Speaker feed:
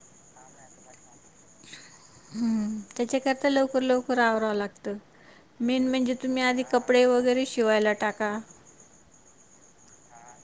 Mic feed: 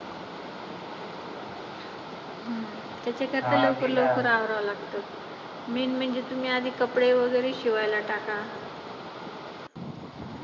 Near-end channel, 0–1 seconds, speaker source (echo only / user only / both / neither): neither